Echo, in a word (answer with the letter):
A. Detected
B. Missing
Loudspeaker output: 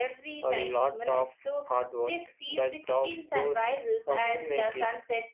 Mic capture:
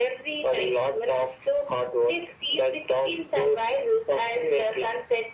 A